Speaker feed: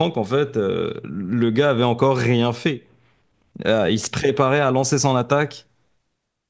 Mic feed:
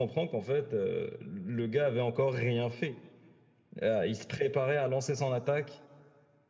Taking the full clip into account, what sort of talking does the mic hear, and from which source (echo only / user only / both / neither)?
echo only